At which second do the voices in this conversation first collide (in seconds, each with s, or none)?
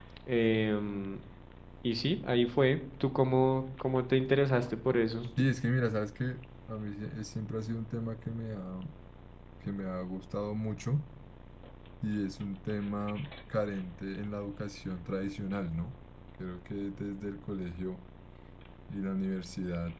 none